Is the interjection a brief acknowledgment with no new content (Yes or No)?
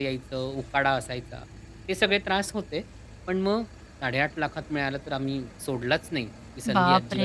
No